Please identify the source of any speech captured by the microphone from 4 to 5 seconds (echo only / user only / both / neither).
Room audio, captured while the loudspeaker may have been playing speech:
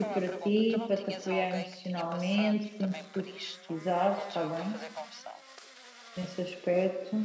both